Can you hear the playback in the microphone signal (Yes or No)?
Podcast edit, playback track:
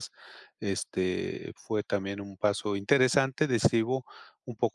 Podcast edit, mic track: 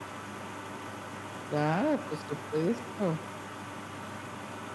No